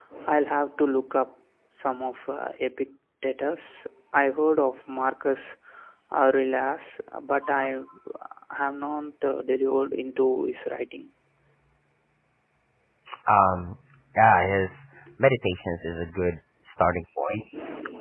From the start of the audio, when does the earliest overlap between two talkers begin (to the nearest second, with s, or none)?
none